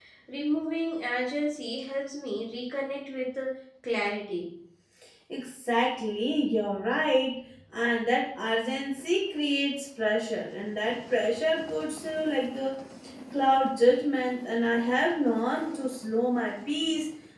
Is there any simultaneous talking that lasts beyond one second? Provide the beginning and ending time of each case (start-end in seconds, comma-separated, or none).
none